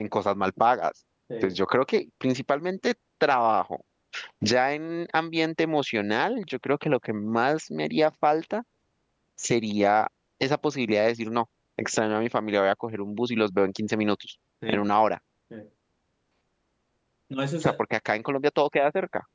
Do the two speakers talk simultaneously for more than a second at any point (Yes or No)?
No